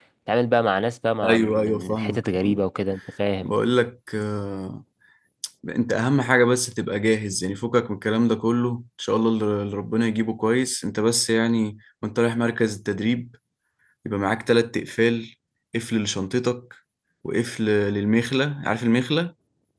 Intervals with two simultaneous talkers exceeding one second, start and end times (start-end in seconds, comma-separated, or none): 1.2-2.6